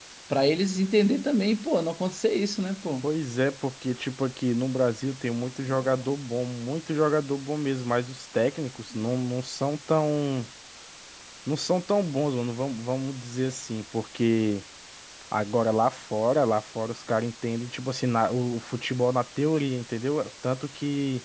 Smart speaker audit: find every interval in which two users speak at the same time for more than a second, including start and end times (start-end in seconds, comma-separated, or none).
none